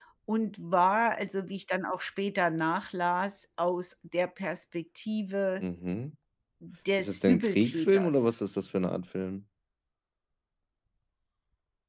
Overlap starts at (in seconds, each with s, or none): 7.0 s